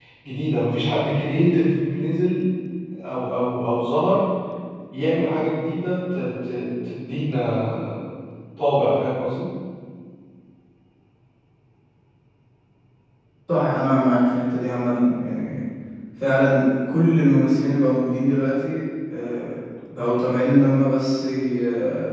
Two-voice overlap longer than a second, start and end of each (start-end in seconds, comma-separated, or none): none